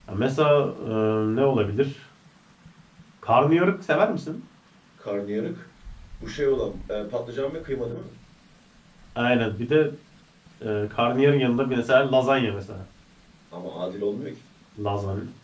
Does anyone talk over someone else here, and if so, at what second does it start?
none

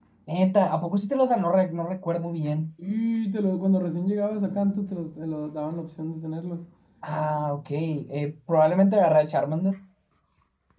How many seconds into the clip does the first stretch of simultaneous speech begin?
none

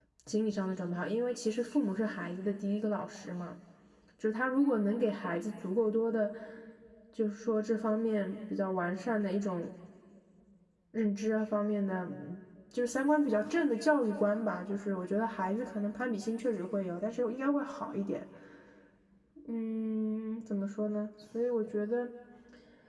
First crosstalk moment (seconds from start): none

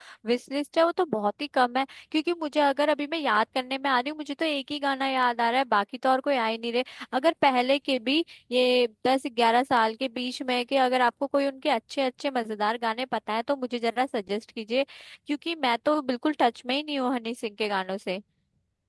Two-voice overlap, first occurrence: none

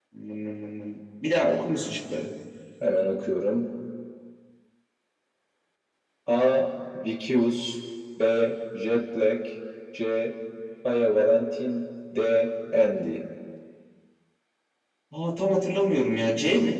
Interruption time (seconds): none

